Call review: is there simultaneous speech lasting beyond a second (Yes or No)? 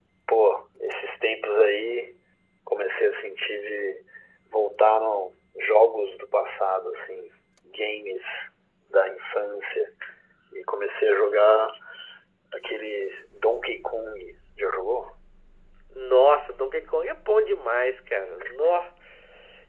No